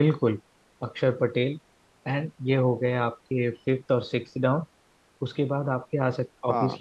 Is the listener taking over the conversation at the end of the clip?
No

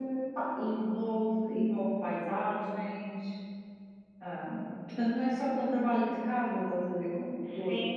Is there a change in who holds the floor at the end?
Yes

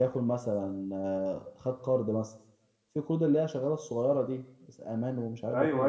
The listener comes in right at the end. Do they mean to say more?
Yes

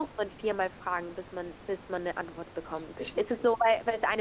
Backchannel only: Yes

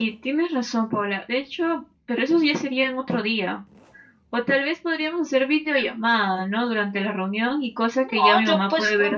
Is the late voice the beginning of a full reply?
Yes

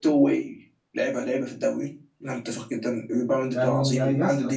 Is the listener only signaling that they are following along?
No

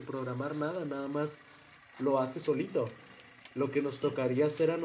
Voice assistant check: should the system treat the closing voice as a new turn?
No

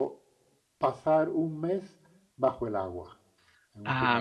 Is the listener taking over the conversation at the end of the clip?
Yes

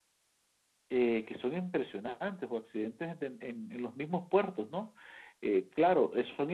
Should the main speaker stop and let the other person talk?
No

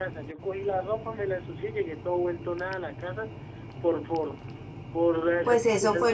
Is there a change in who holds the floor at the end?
Yes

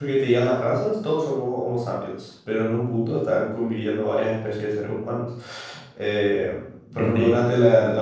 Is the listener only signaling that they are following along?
Yes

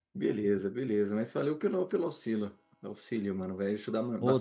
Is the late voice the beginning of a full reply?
Yes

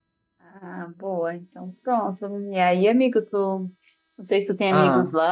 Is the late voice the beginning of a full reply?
No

